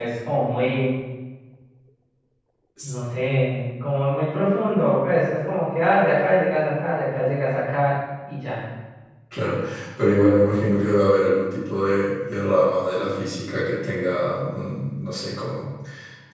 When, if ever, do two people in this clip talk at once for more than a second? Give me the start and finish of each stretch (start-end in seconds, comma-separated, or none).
none